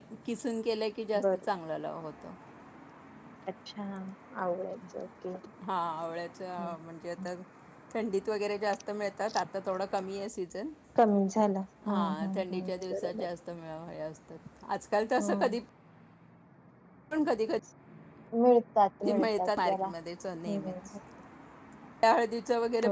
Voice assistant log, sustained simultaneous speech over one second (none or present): present